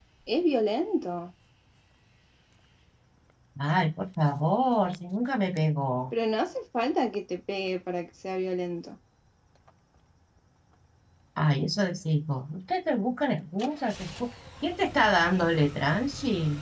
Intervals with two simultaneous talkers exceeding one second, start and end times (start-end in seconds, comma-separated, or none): none